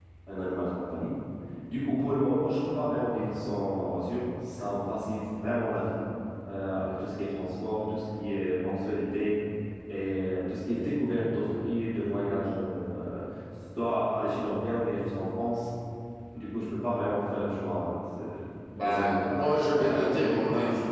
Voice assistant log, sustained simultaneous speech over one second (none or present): present